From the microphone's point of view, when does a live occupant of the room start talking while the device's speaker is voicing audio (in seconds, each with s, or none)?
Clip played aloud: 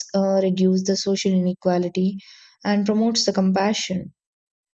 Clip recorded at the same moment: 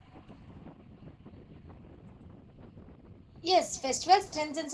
3.4 s